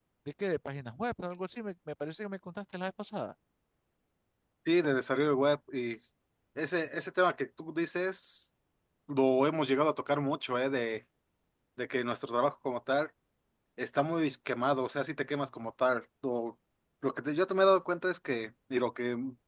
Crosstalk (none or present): none